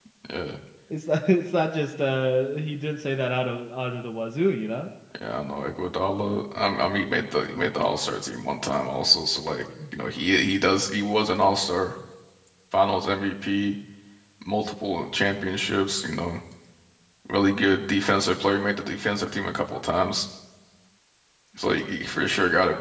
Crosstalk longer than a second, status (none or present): none